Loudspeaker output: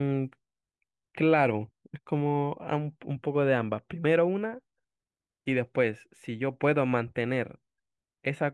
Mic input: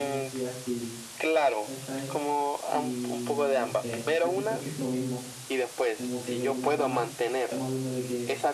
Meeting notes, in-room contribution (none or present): present